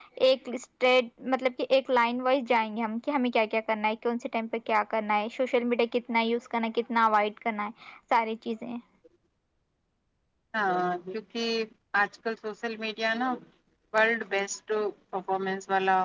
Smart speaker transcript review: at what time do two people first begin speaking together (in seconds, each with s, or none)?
none